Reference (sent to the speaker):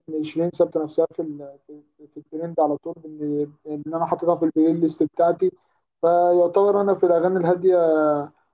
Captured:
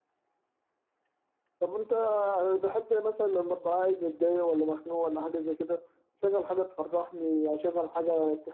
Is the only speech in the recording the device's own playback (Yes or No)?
No